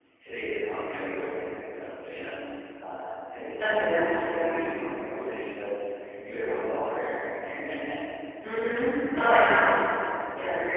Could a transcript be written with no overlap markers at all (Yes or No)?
No